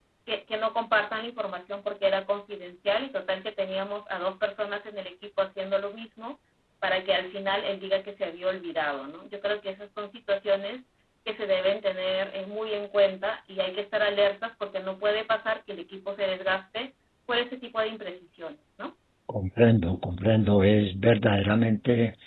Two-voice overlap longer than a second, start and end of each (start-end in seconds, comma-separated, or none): none